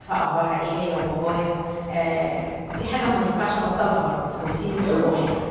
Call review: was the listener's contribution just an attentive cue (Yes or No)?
No